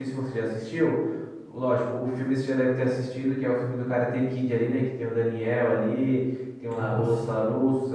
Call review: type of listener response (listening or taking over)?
listening